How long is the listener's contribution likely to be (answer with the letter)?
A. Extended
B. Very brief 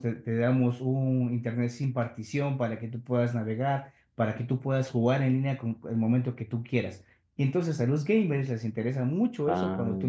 B